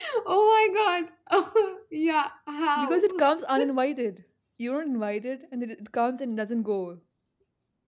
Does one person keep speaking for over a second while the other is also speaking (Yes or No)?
No